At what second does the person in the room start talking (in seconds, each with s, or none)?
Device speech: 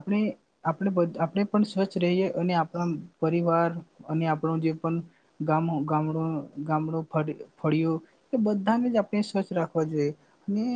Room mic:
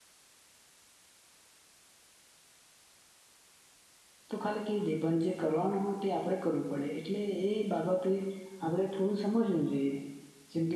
4.3 s